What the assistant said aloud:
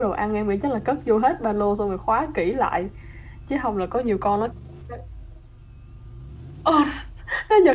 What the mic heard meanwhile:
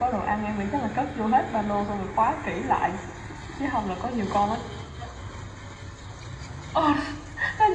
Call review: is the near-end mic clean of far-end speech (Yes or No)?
No